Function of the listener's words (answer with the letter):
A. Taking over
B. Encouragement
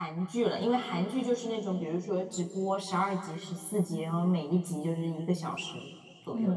A